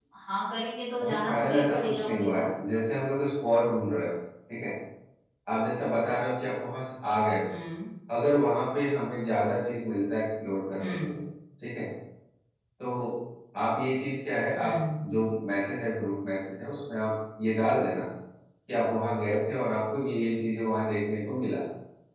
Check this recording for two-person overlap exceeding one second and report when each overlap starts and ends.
1.0-2.5

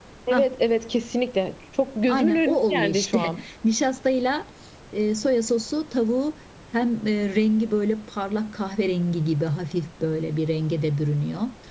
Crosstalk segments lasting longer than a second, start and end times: 2.1-3.4

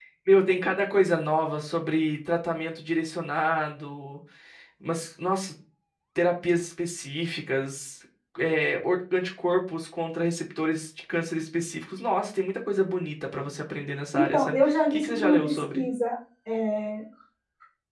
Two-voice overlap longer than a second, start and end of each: 14.1-15.8

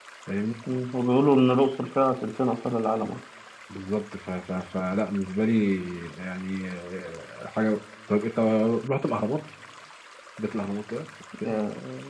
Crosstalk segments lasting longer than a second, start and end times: none

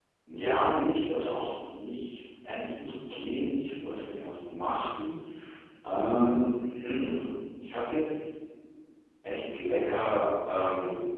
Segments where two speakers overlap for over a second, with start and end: none

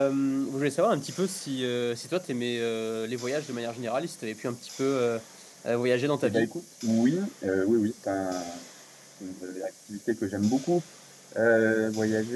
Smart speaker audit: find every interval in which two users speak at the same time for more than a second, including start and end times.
none

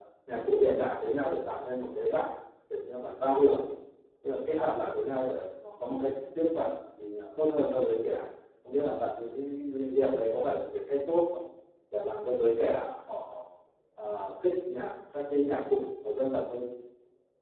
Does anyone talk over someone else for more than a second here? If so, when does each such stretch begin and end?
none

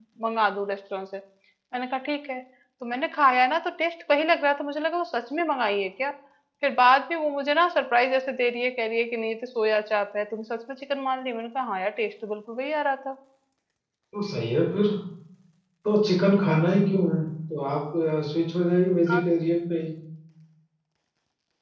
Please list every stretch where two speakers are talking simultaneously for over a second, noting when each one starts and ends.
none

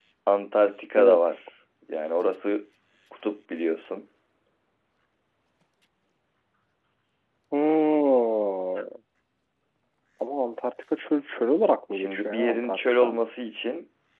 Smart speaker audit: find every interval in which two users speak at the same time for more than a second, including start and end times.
11.9-13.2

